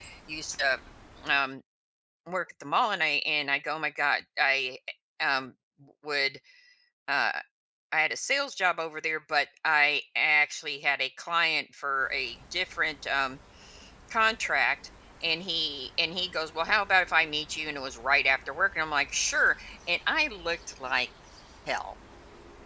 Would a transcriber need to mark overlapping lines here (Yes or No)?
No